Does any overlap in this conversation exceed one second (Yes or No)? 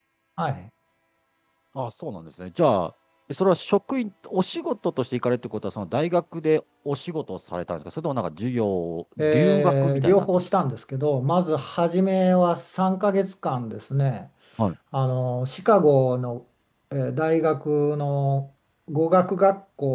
Yes